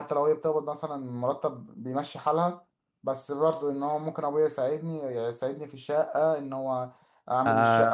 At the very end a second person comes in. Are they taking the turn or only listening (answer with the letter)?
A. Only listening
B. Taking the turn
B